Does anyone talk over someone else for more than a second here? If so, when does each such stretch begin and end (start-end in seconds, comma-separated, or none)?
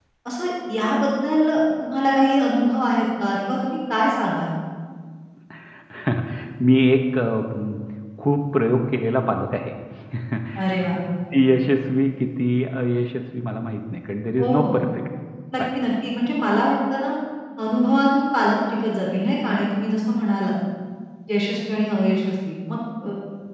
none